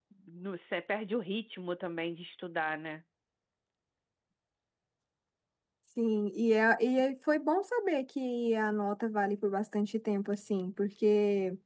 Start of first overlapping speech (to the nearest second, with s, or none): none